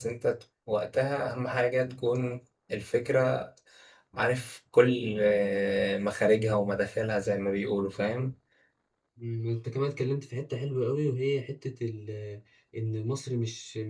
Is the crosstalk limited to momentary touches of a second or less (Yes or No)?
Yes